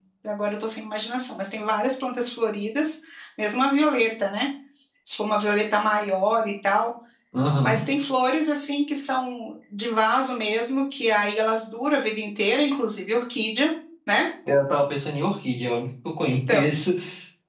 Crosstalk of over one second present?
No

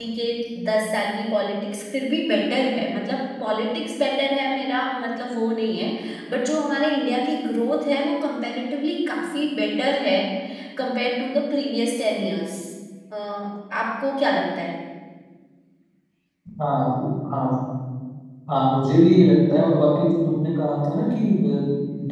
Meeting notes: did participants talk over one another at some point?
No

